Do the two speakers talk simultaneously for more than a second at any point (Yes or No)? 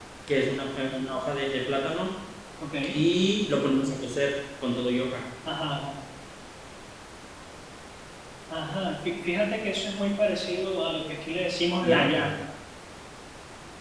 No